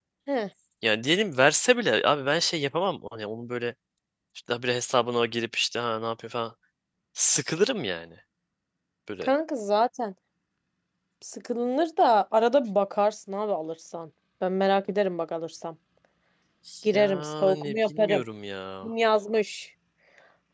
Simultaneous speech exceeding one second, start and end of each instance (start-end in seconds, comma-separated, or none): 16.9-18.2